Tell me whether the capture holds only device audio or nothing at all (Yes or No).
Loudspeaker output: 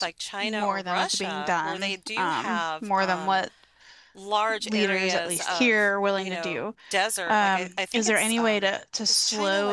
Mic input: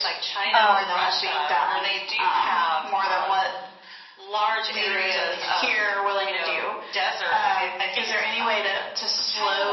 No